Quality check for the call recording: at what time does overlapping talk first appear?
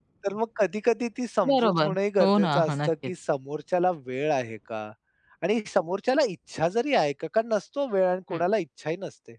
1.4 s

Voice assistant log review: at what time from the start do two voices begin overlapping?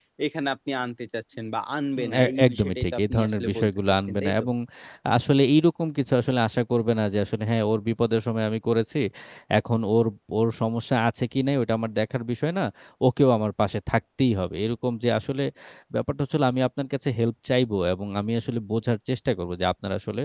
2.0 s

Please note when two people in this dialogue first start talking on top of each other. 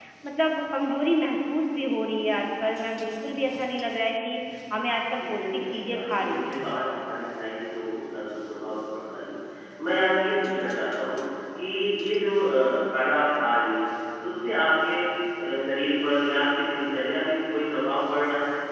5.2 s

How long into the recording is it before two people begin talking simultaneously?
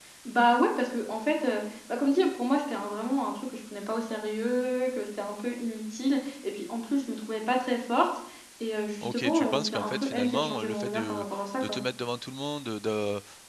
9.0 s

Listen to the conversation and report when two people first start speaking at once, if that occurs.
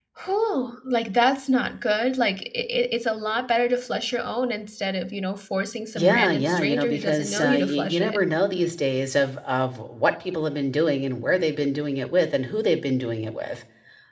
5.9 s

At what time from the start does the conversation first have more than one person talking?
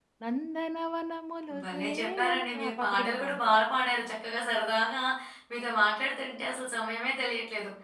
1.5 s

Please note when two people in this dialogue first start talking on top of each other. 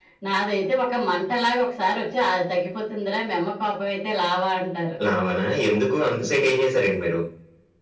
none

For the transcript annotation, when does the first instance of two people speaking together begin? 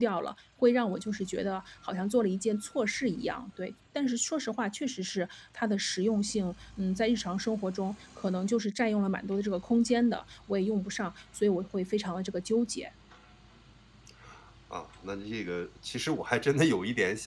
none

